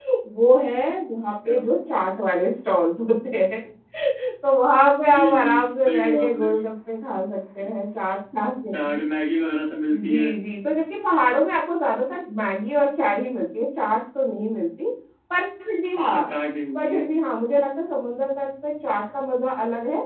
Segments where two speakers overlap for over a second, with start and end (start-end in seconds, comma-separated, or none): 5.0-6.5